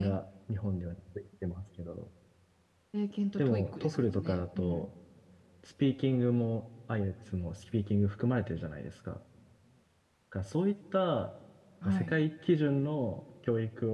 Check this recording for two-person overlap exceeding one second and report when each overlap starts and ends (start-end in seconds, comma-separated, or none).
3.4-4.9